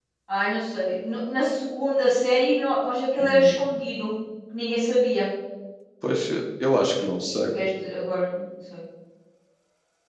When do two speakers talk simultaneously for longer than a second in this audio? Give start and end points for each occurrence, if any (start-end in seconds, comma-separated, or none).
none